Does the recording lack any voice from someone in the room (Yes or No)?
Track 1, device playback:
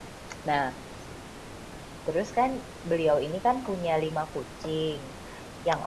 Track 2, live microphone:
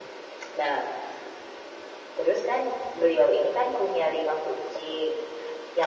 Yes